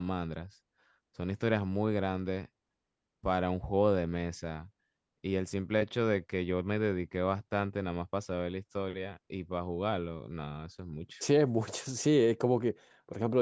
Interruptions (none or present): none